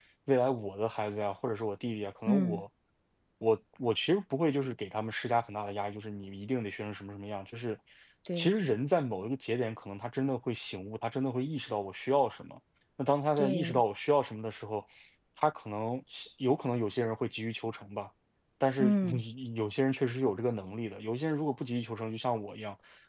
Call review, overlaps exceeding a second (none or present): none